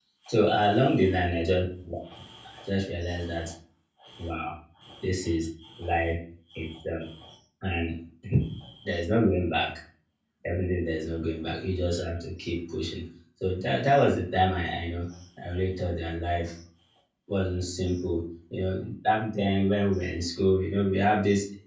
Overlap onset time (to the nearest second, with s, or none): none